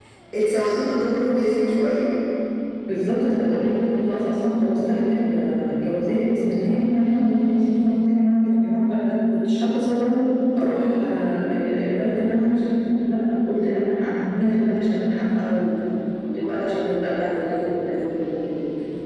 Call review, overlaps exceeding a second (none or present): none